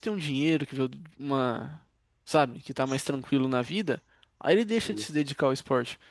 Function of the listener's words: listening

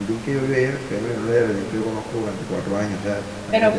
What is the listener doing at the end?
taking over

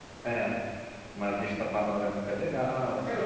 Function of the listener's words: taking over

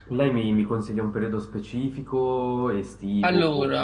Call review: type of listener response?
listening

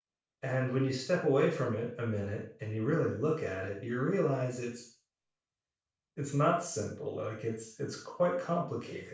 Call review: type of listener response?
taking over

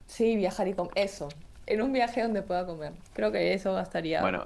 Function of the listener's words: taking over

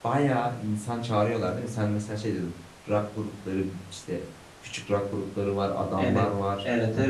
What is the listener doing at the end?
taking over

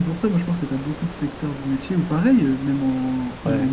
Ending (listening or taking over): listening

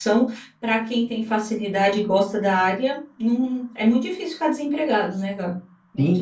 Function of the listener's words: taking over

